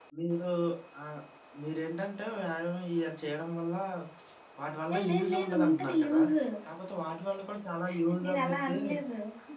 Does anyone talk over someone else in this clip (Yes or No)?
Yes